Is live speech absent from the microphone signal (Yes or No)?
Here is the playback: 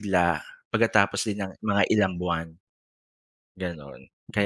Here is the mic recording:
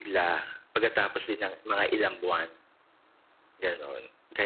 Yes